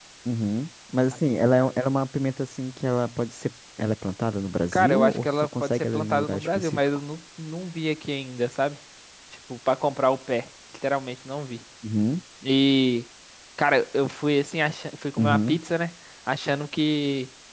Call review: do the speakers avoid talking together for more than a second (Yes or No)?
No